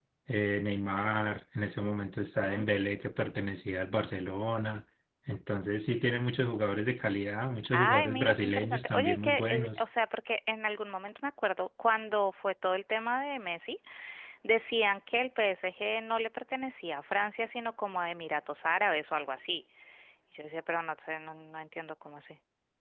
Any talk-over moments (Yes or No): Yes